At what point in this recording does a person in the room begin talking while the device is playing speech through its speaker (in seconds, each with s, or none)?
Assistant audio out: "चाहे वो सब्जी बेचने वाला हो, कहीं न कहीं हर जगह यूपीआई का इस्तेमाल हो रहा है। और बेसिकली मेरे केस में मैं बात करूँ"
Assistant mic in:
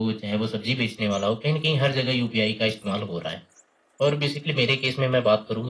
none